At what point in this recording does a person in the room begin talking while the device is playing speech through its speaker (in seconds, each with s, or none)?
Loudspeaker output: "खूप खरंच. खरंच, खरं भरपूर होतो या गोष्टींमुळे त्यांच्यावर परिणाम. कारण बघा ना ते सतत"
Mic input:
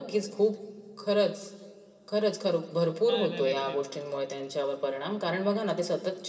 3.1 s